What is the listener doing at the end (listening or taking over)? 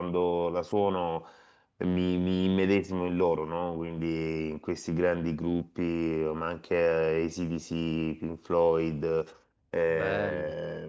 listening